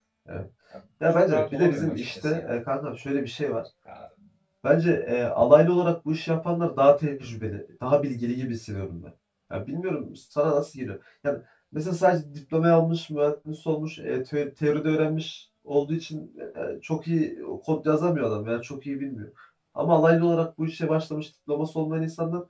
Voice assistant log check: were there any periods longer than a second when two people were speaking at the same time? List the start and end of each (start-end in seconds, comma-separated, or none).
1.1-2.6